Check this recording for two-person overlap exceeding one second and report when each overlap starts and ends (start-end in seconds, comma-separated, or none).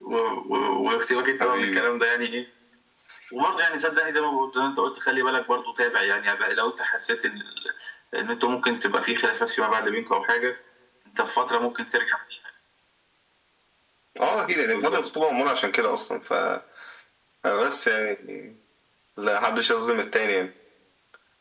none